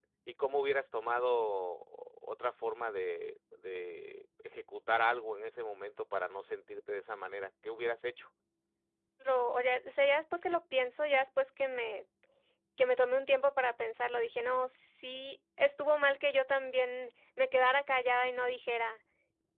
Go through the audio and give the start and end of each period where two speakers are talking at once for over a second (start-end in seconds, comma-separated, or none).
none